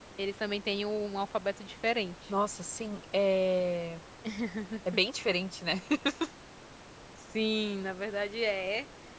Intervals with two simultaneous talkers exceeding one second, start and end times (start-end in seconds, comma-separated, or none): none